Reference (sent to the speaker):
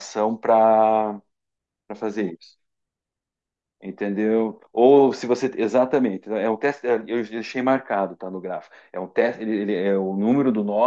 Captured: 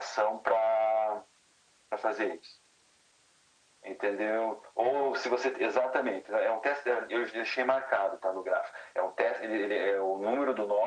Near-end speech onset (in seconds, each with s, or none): none